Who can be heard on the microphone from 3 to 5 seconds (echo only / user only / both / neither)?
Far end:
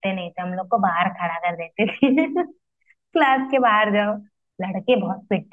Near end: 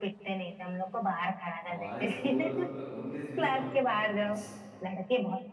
both